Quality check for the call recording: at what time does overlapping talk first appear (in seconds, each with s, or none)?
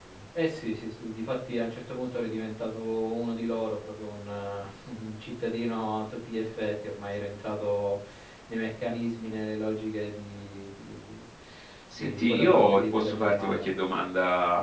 12.0 s